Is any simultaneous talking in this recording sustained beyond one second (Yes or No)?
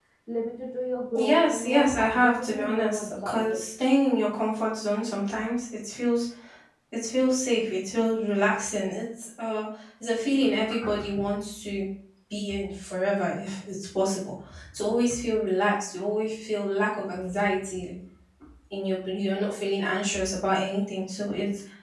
Yes